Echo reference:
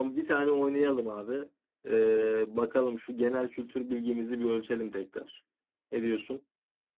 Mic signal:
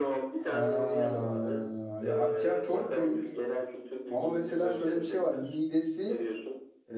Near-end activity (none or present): present